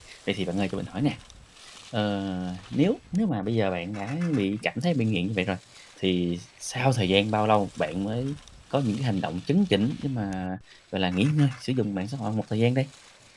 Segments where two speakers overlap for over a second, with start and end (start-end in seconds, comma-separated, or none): none